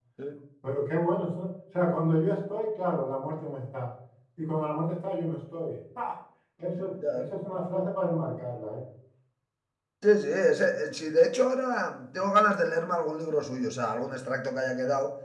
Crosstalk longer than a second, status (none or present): none